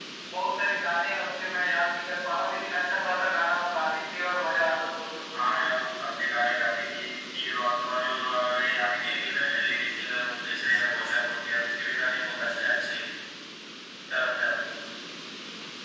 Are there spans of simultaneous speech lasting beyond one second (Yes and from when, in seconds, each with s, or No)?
No